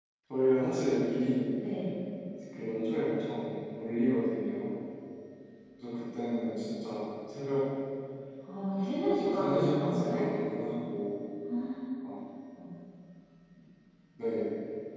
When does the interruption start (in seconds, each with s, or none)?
8.9 s